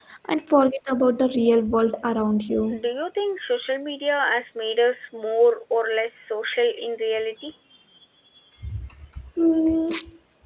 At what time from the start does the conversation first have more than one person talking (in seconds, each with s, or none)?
none